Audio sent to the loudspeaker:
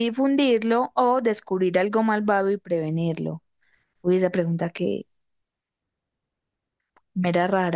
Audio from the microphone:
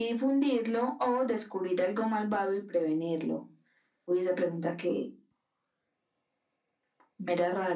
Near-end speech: none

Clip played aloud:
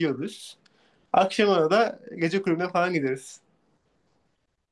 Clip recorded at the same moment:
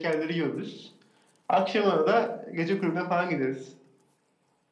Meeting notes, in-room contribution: none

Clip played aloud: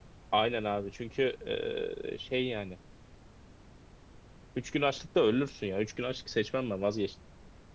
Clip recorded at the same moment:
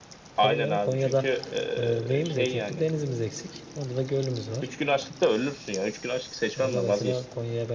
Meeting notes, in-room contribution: present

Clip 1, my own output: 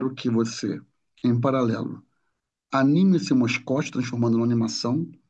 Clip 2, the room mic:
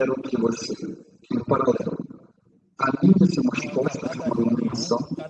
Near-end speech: present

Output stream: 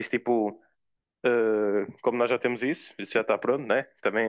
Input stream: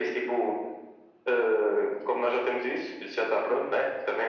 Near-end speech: none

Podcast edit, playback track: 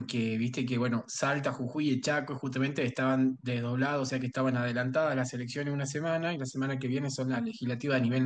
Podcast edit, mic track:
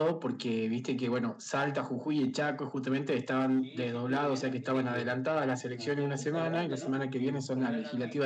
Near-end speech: present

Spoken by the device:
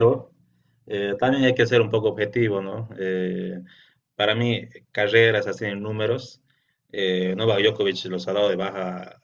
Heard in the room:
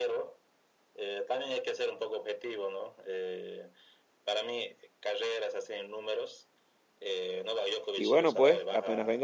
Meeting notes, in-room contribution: present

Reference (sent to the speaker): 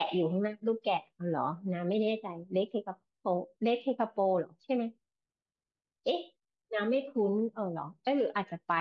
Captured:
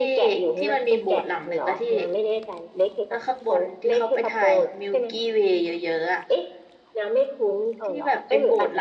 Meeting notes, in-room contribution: present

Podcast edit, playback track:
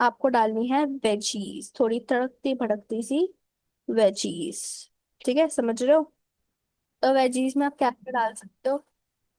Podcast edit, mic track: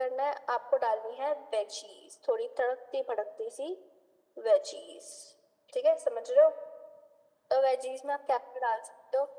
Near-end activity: none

